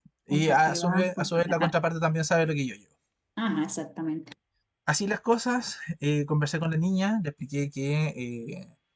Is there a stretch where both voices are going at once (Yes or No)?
Yes